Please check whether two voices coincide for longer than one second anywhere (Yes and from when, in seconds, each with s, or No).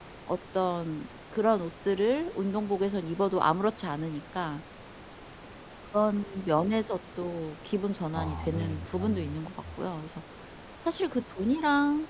Yes, from 8.1 s